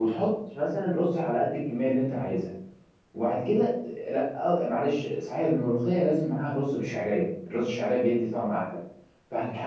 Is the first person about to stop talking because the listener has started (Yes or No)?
No